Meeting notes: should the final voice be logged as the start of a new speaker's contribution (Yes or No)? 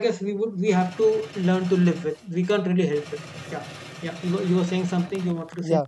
Yes